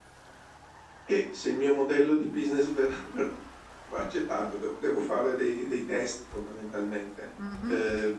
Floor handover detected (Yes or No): Yes